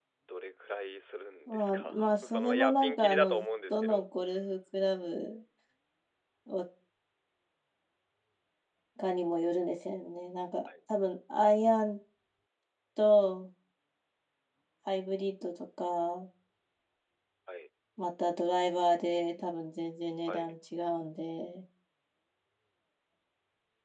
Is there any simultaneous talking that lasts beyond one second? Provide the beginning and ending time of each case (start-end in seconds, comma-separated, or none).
1.5-4.0